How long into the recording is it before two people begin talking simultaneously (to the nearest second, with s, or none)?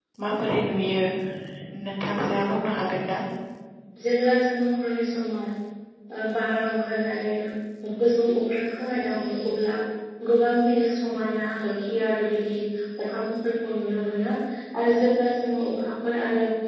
none